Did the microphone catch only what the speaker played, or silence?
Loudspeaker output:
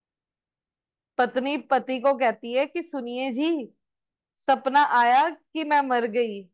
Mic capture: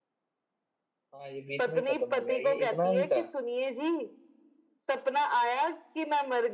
No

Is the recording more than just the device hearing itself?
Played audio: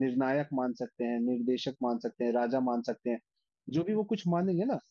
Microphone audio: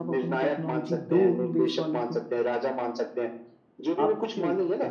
Yes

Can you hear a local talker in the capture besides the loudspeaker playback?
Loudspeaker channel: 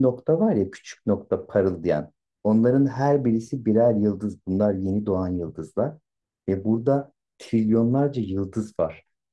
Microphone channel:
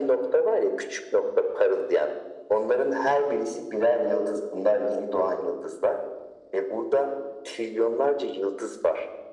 No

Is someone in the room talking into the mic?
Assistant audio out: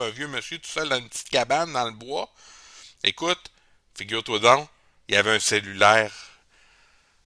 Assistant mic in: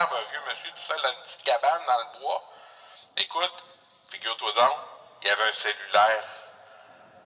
No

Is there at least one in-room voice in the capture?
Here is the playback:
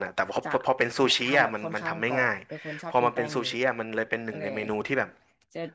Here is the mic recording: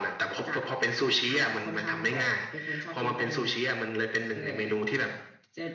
No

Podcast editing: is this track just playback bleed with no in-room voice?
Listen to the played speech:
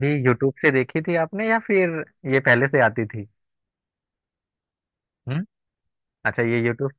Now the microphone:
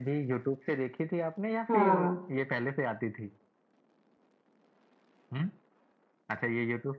No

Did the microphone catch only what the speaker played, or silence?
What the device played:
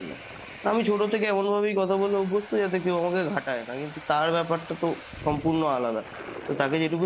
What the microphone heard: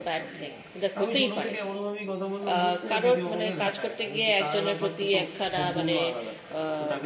No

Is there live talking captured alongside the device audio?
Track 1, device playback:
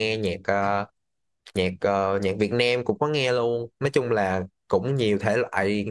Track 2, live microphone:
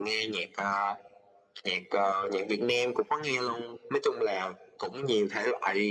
No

